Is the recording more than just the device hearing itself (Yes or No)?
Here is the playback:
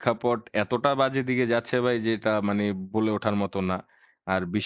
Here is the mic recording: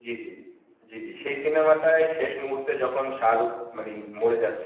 Yes